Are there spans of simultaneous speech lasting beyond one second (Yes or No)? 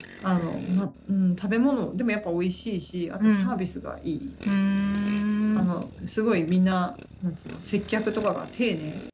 No